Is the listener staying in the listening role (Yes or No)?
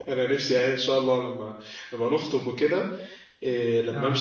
Yes